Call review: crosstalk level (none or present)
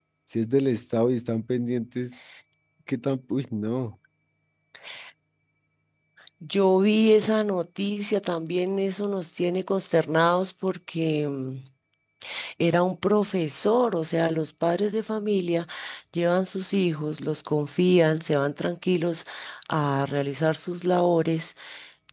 none